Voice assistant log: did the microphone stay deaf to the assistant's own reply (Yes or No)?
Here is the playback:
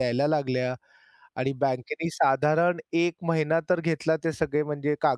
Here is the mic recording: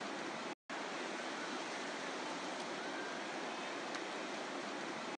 Yes